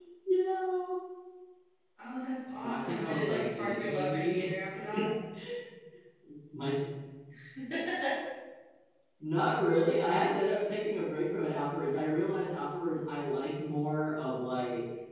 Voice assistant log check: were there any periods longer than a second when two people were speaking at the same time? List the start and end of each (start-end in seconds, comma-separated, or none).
2.6-4.5